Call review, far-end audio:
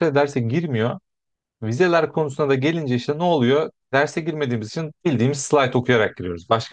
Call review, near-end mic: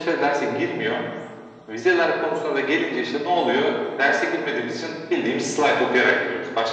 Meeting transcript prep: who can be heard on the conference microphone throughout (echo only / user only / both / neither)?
echo only